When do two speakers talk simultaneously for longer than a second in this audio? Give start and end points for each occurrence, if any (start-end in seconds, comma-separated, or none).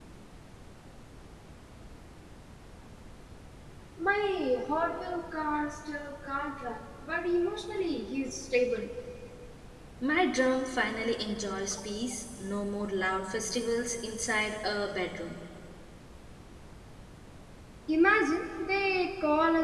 none